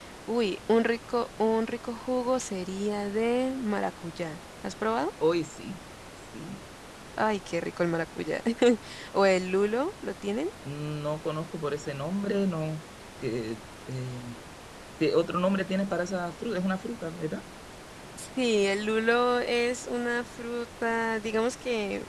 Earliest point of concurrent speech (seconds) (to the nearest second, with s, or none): none